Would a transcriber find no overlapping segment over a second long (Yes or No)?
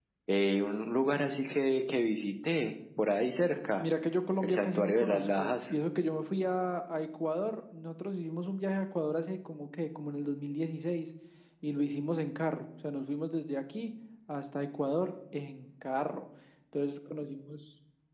No